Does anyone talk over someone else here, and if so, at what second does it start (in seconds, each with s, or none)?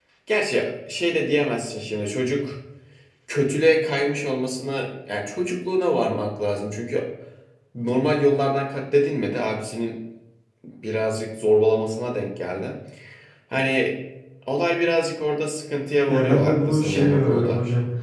16.1 s